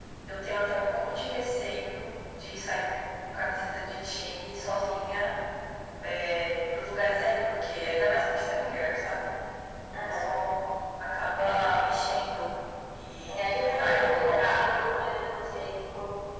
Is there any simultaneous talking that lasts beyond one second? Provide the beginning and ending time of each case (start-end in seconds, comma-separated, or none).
13.3-14.7